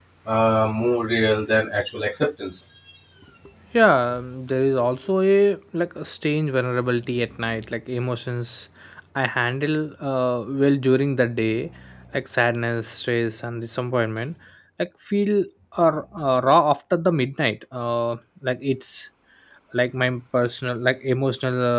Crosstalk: none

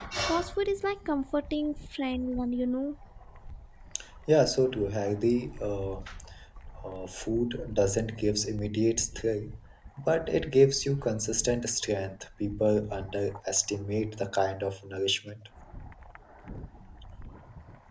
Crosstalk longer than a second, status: none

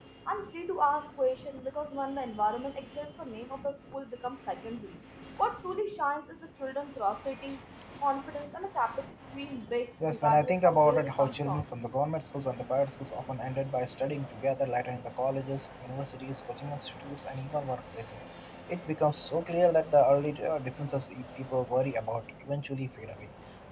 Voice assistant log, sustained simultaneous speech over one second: present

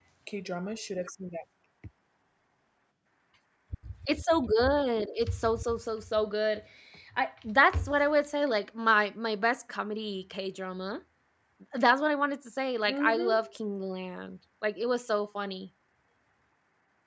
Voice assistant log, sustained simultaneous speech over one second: none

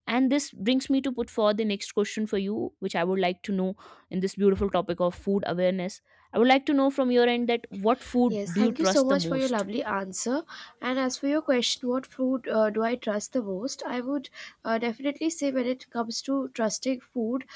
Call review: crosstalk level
present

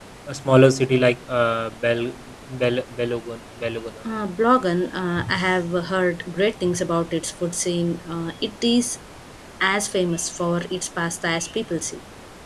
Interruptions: none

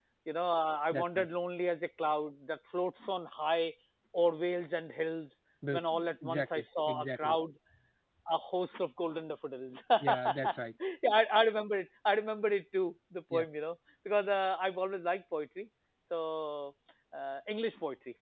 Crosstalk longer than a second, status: present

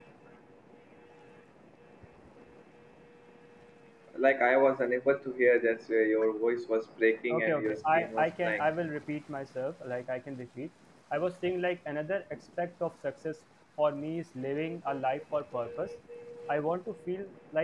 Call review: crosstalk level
present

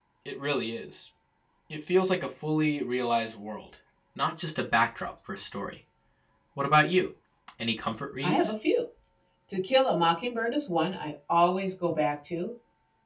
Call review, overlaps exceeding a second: none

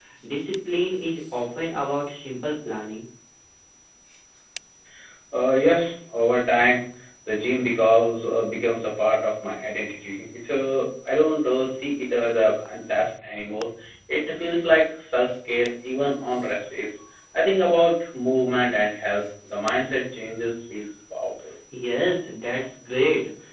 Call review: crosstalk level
none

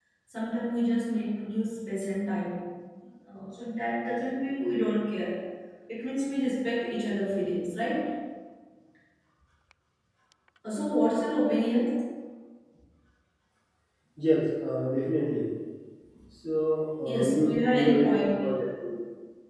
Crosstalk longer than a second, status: present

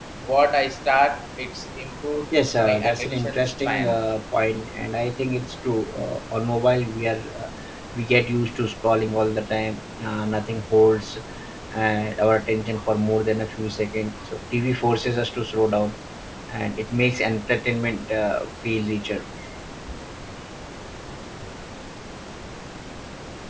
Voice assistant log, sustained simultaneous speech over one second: present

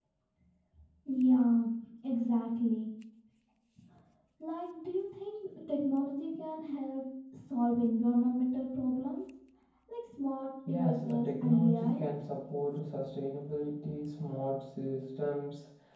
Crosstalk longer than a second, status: present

